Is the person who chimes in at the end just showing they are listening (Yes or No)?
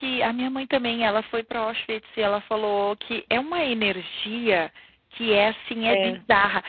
Yes